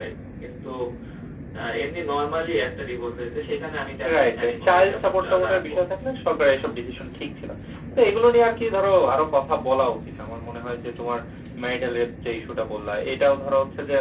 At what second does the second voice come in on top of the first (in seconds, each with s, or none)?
4.0 s